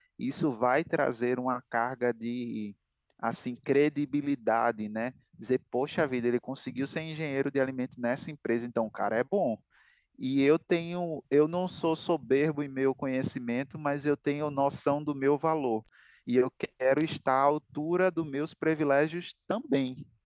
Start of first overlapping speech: none

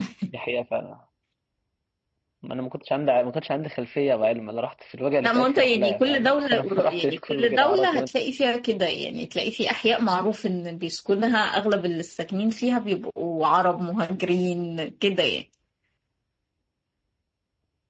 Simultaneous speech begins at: 5 s

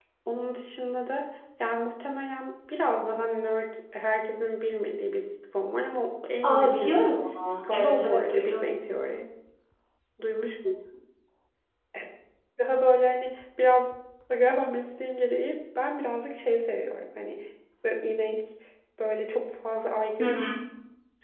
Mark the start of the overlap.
6 s

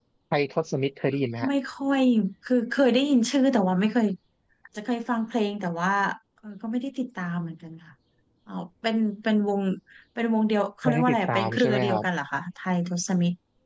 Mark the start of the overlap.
11 s

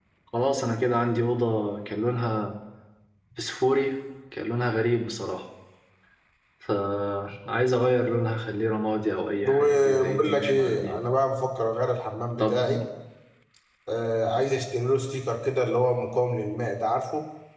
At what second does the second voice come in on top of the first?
9 s

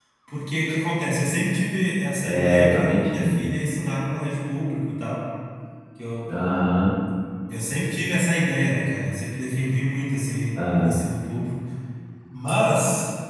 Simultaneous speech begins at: 2 s

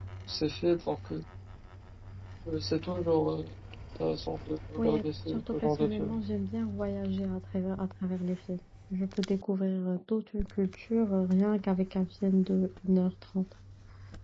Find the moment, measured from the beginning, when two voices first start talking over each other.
5 s

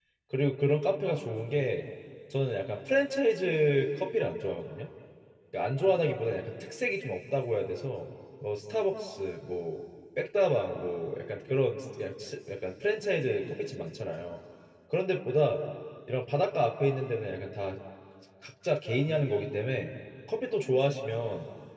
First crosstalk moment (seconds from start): none

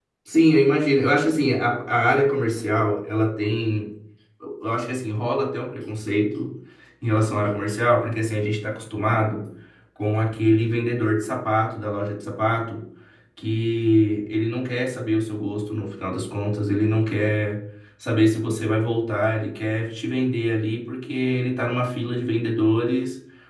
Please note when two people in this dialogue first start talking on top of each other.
none

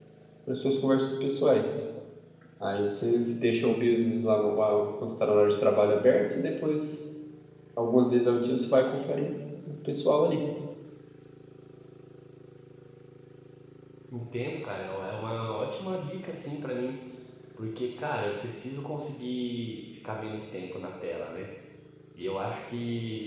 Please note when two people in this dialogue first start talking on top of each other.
none

